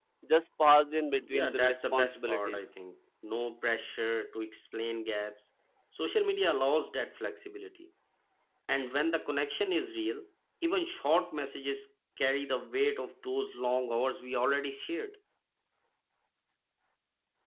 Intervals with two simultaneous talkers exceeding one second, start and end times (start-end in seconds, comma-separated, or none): 1.2-2.6